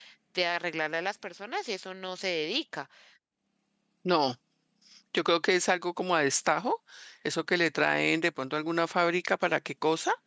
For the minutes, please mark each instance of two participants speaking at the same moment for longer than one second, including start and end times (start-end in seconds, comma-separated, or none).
none